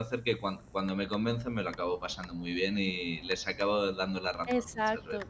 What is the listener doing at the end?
taking over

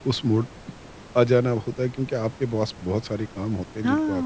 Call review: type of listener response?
taking over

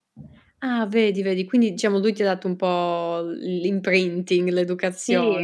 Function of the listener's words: taking over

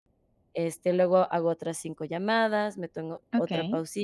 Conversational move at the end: taking over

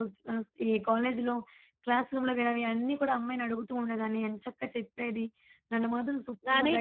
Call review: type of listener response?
taking over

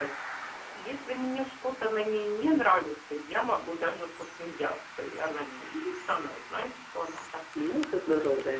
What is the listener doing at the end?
taking over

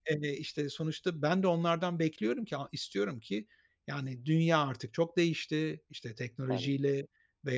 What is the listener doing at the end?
listening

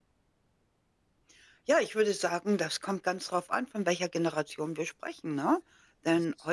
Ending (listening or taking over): listening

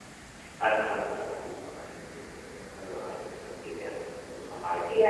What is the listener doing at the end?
taking over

